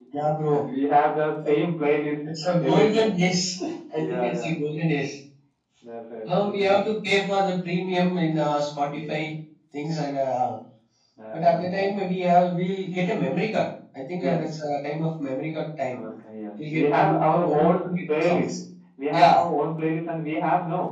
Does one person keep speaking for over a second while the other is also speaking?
Yes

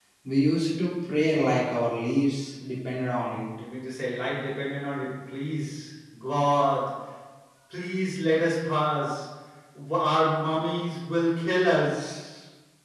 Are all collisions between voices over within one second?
Yes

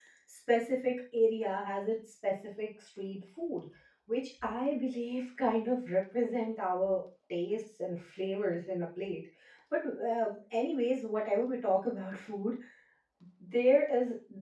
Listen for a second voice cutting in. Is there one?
No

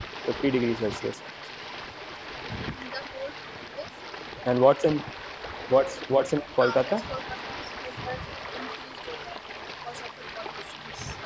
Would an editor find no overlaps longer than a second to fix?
Yes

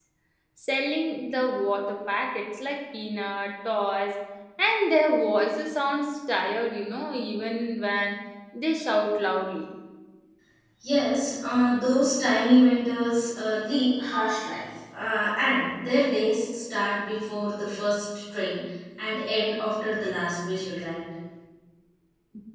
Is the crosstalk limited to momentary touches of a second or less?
Yes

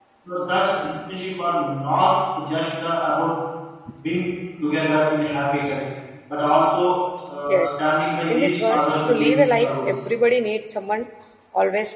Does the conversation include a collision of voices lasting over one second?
Yes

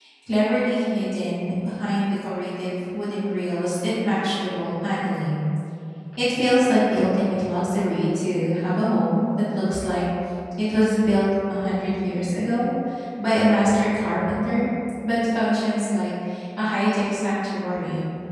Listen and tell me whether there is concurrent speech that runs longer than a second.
No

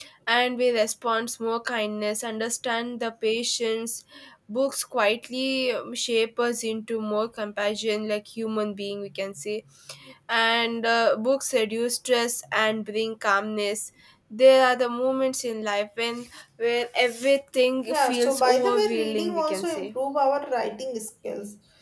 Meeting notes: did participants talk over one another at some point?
Yes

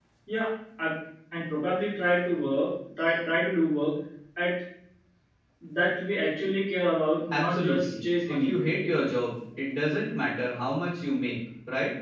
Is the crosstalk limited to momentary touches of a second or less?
No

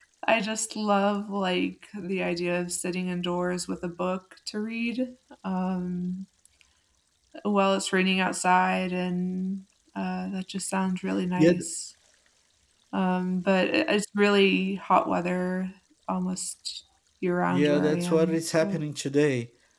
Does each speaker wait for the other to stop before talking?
No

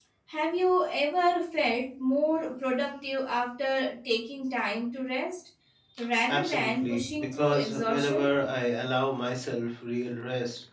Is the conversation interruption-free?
No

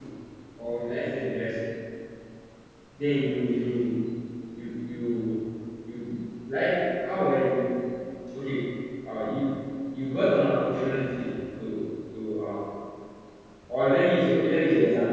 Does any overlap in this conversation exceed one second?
No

